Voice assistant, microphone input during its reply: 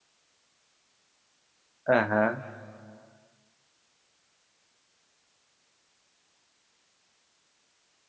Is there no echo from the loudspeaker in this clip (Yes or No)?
Yes